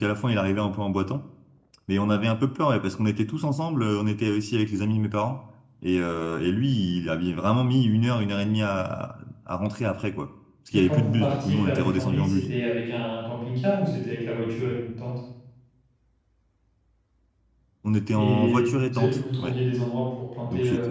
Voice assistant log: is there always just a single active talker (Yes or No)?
No